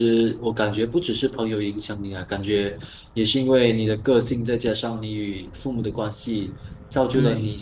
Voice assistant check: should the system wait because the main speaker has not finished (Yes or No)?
Yes